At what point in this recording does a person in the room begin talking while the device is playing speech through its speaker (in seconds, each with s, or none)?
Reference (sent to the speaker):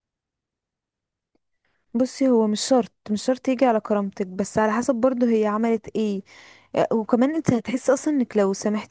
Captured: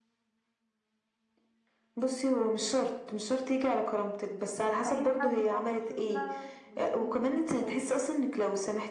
4.6 s